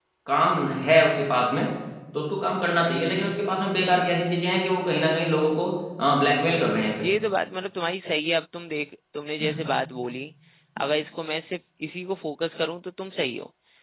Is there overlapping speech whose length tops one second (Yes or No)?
No